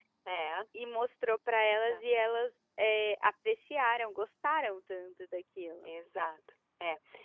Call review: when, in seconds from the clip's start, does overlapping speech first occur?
none

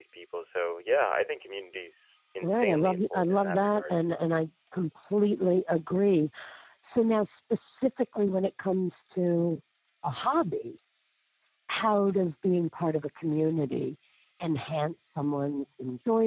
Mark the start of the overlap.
2.4 s

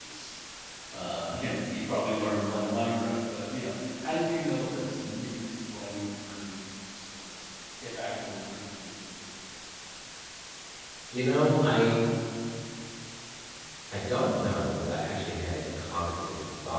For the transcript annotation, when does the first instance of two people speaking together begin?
none

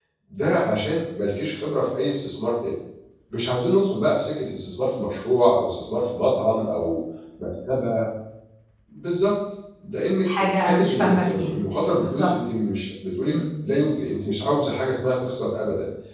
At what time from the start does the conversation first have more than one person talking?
10.2 s

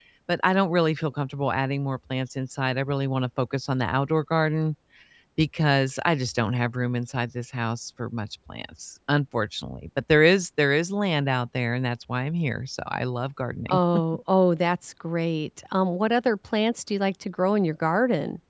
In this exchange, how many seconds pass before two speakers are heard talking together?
none

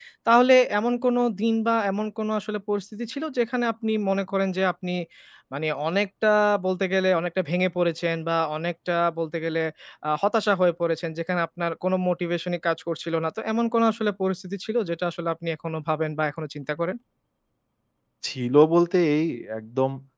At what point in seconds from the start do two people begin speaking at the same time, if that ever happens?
none

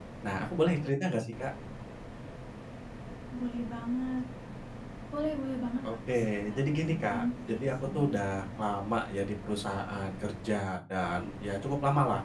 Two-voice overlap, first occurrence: 5.8 s

